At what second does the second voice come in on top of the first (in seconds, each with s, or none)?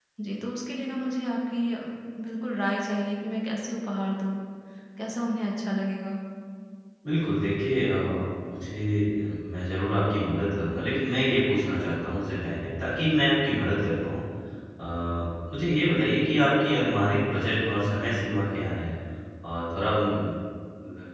none